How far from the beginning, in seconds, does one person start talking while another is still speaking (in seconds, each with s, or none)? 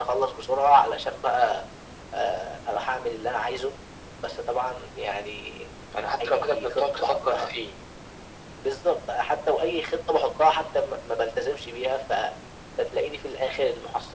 6.2 s